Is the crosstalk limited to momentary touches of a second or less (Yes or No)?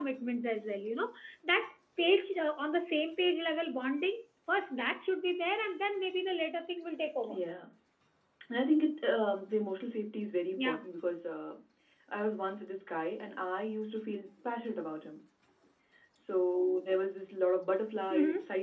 Yes